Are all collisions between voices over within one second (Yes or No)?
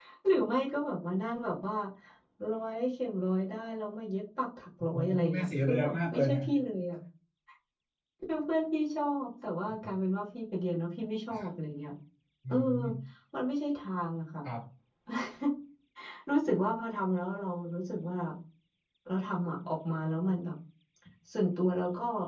No